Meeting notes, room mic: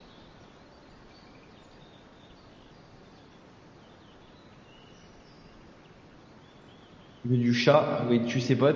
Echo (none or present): none